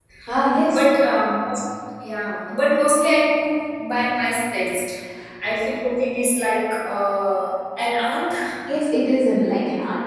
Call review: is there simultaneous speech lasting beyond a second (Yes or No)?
No